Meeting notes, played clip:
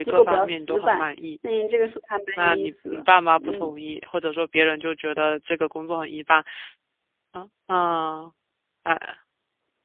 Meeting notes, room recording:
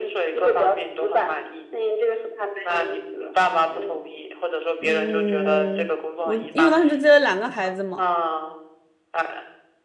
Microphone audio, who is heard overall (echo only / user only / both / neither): both